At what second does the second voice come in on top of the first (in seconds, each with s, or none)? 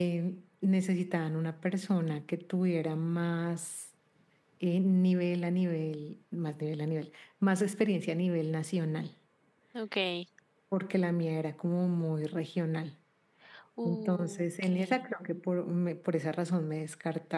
13.8 s